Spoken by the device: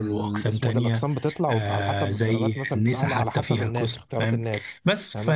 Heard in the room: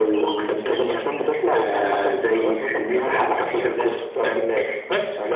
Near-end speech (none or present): none